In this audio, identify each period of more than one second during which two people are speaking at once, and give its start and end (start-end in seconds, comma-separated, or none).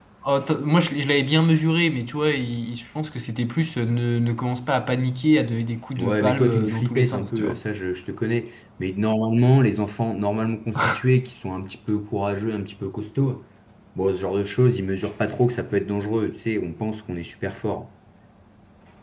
6.0-7.6